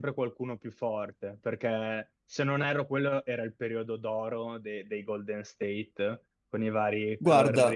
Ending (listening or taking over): listening